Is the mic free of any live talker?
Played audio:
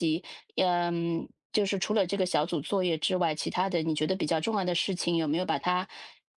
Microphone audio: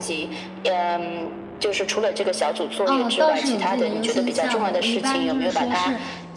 No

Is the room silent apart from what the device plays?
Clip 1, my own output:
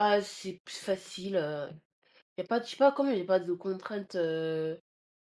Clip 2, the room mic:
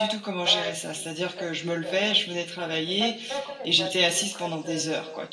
No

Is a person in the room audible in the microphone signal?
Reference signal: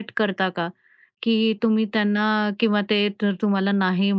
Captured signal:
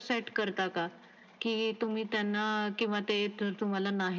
No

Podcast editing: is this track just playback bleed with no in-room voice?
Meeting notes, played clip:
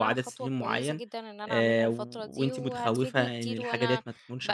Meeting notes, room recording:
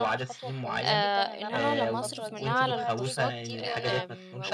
No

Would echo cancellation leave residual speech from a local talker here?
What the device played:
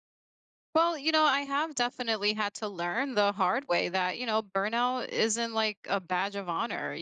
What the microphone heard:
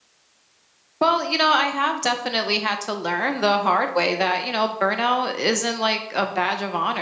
No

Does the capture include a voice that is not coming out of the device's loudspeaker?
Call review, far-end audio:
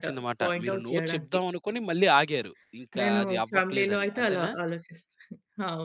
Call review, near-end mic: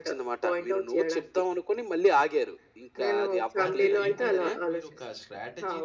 Yes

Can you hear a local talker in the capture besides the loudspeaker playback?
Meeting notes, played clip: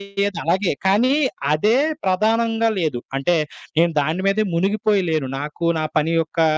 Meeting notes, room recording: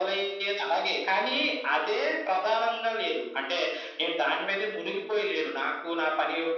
No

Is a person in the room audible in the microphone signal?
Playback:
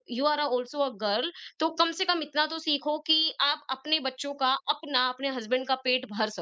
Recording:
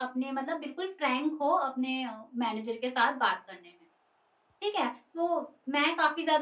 Yes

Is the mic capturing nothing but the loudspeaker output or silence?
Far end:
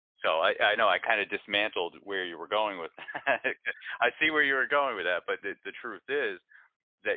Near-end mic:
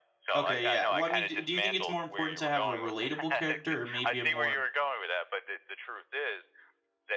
No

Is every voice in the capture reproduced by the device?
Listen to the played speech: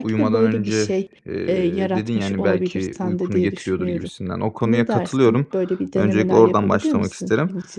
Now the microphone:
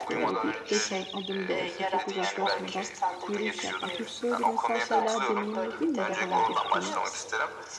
No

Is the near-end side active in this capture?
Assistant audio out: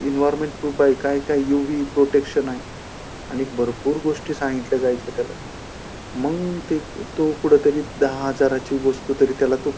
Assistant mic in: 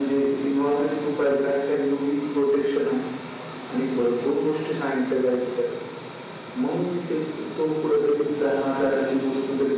No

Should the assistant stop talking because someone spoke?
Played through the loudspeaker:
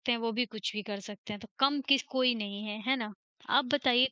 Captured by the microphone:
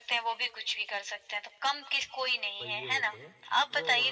Yes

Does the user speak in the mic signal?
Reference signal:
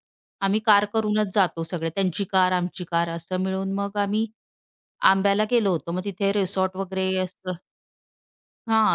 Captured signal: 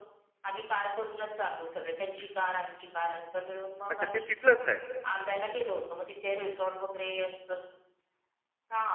Yes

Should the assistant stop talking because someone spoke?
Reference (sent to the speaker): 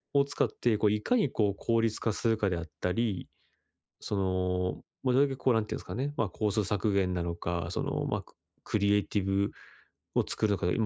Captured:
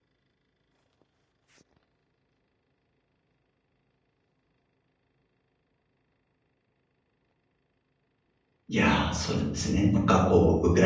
Yes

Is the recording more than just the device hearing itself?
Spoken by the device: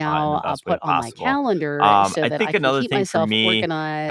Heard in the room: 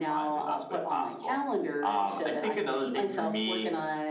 No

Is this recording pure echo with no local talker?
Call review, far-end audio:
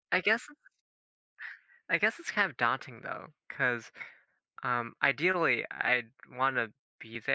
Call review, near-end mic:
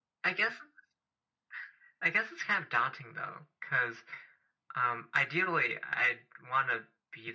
Yes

